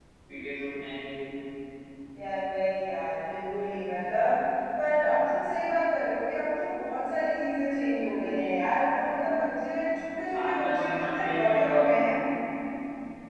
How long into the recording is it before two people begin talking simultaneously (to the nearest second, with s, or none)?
10 s